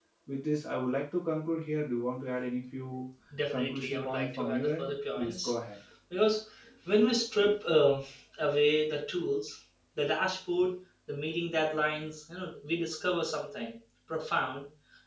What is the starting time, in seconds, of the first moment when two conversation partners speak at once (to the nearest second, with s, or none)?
4 s